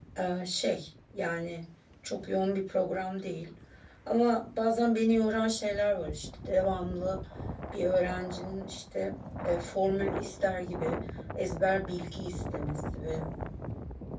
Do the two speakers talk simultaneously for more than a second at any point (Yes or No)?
No